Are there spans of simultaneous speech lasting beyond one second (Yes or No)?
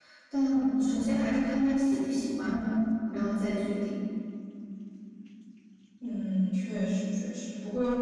No